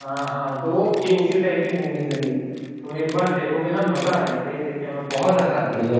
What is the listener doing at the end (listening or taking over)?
taking over